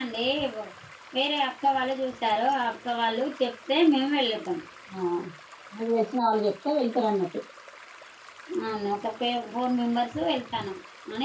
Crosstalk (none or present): none